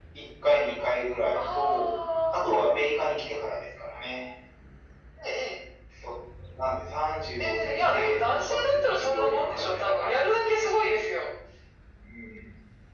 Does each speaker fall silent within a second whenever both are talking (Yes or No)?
No